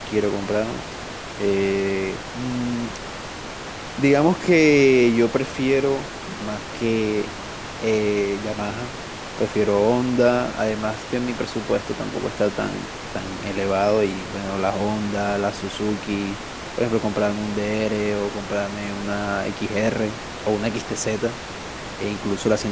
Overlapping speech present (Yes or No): No